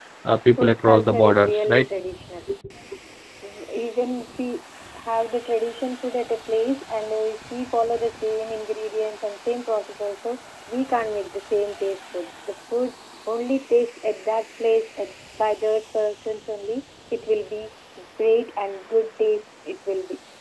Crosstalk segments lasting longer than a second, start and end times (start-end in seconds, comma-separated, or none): 0.6-1.9